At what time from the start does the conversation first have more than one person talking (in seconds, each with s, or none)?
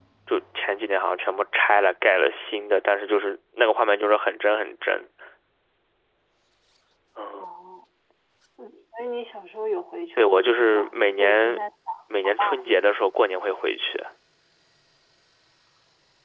10.2 s